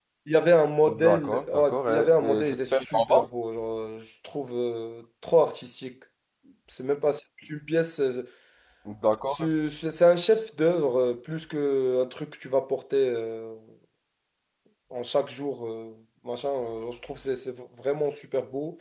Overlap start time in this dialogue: 0.9 s

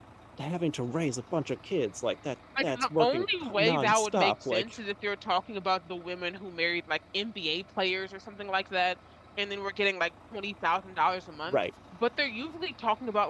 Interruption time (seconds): 2.6 s

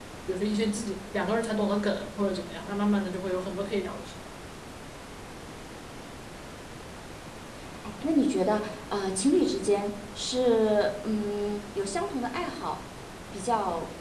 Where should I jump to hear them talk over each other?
none

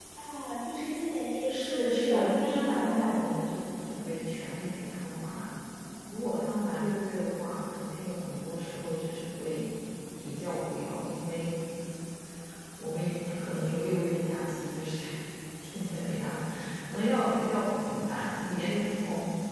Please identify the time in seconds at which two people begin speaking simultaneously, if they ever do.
1.5 s

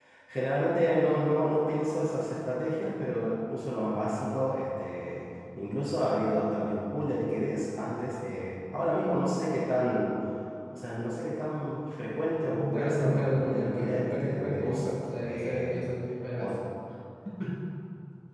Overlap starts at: 12.4 s

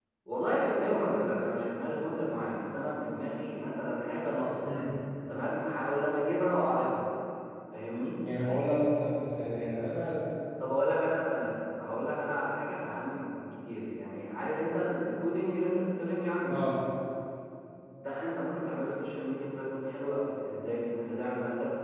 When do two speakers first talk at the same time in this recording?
none

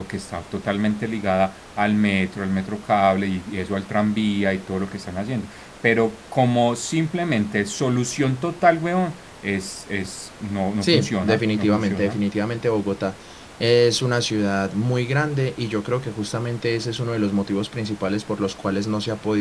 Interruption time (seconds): 10.8 s

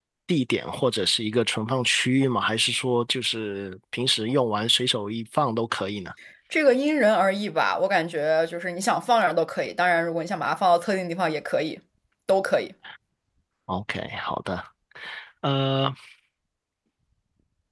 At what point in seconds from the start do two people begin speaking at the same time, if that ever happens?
none

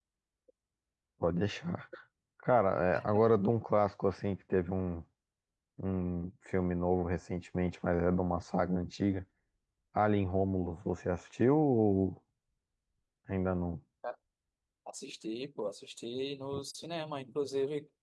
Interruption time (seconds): none

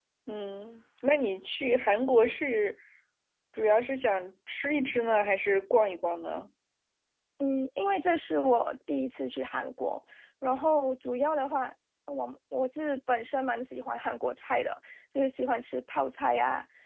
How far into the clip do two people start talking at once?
none

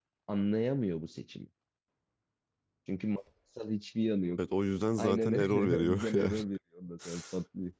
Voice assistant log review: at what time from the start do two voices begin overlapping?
5.0 s

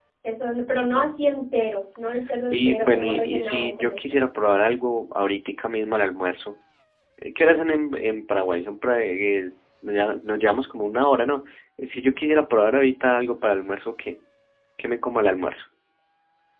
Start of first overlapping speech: 2.5 s

